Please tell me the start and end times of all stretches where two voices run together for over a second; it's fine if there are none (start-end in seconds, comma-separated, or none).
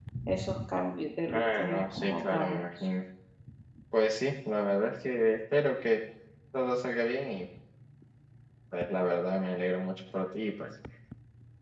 1.3-2.7